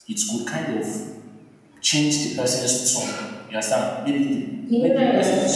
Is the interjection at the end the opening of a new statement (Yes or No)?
No